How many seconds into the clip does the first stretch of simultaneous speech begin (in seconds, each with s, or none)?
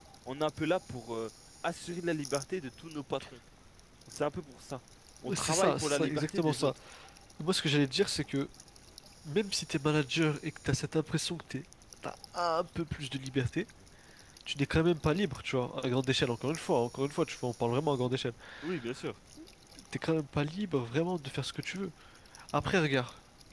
5.3 s